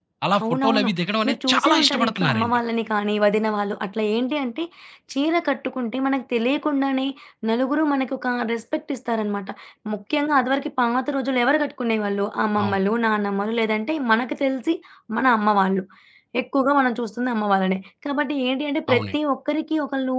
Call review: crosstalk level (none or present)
present